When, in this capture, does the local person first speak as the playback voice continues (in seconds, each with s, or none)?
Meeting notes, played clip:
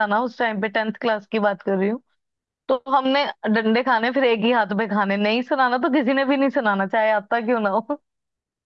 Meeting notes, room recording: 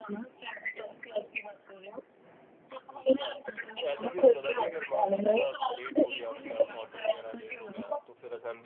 2.9 s